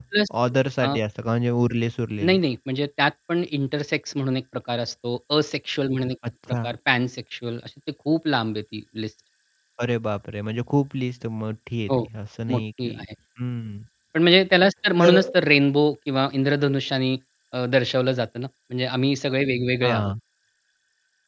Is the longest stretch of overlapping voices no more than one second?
Yes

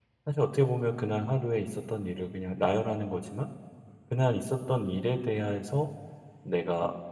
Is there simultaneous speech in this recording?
No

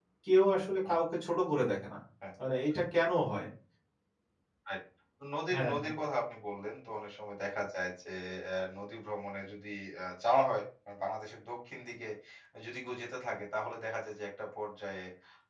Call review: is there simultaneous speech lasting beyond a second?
No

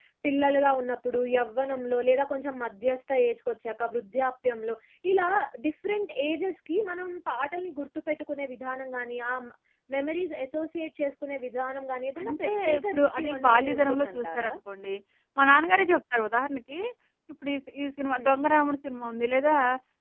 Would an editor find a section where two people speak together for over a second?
Yes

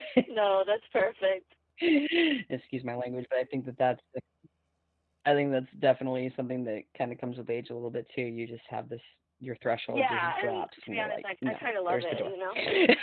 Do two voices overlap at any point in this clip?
Yes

